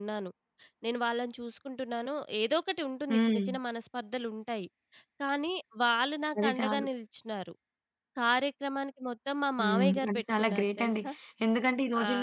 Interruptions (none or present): present